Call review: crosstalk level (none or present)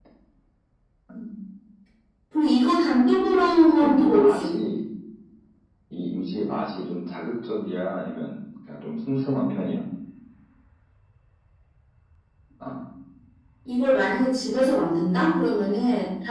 present